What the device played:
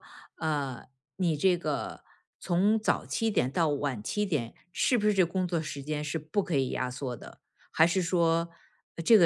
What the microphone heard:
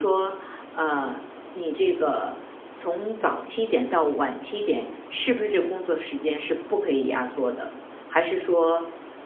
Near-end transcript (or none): none